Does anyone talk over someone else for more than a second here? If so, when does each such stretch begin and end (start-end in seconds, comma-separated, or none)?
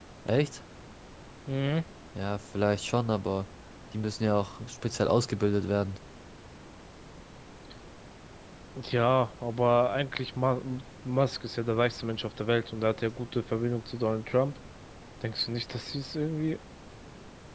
none